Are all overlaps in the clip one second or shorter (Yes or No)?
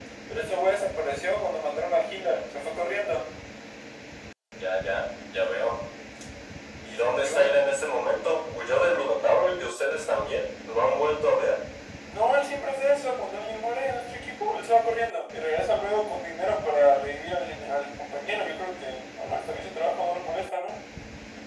Yes